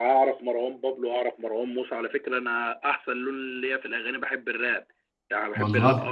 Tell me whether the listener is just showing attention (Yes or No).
Yes